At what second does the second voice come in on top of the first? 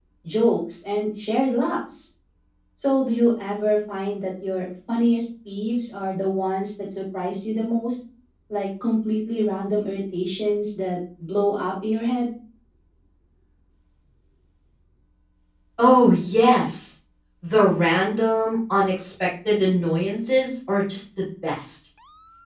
none

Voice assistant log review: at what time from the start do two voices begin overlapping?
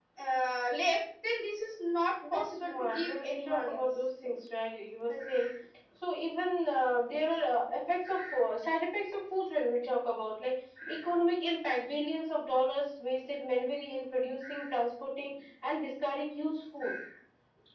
2.3 s

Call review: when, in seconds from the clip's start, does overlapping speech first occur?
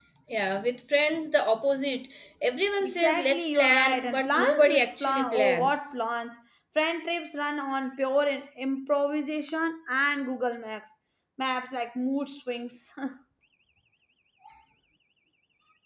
2.8 s

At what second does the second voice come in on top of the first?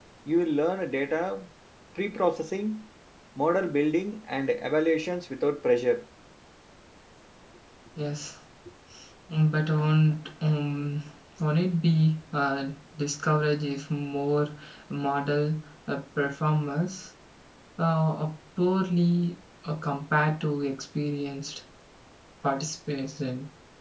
none

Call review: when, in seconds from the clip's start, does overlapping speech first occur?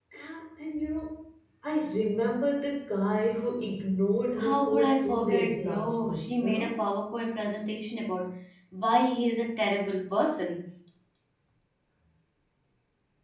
4.4 s

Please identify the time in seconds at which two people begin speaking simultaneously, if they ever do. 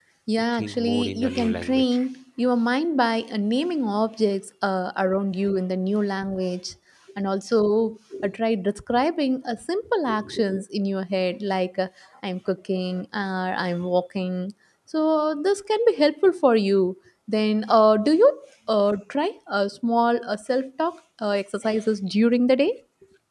0.5 s

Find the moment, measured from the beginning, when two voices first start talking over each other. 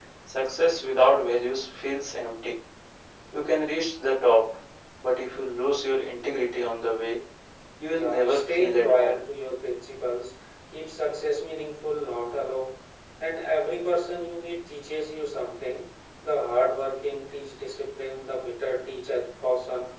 7.9 s

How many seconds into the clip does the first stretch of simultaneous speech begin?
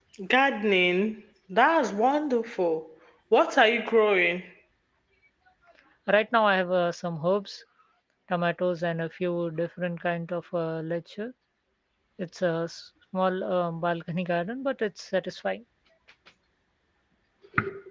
none

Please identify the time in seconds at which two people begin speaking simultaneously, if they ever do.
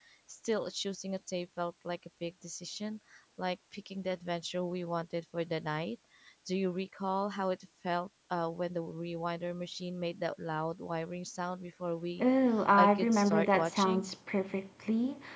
12.8 s

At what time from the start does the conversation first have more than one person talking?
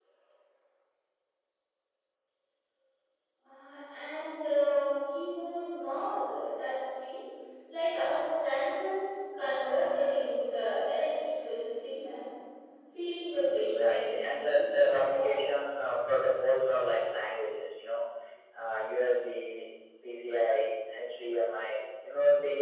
13.5 s

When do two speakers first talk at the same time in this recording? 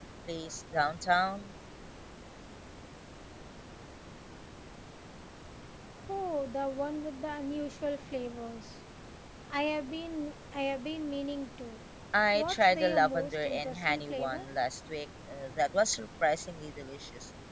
12.3 s

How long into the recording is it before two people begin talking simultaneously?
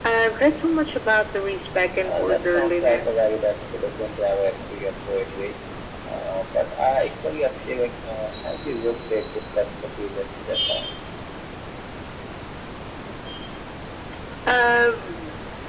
2.0 s

